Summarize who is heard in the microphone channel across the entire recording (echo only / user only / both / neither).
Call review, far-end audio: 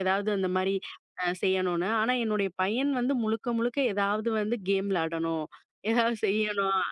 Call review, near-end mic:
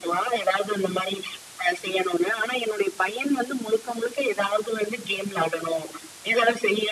echo only